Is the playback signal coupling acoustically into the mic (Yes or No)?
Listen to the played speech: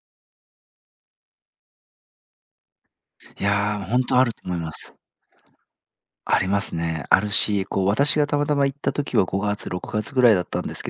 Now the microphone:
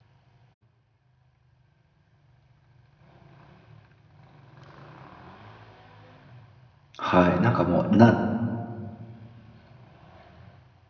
No